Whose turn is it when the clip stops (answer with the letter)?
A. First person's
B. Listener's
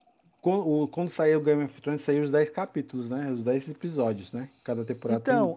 B